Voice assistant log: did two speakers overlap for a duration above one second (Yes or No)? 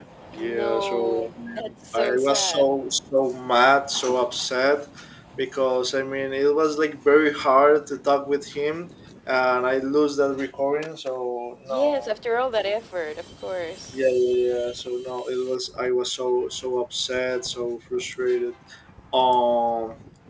Yes